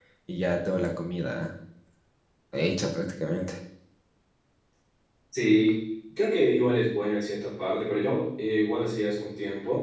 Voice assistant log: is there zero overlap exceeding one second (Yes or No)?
Yes